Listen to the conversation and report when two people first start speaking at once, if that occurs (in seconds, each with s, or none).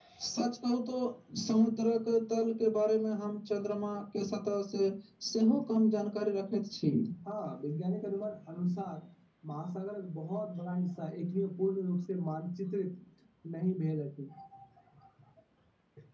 none